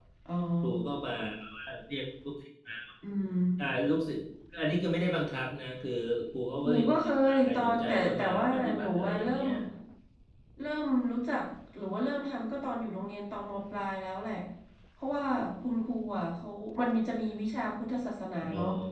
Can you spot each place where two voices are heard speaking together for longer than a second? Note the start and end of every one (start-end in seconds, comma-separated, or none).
6.7-9.5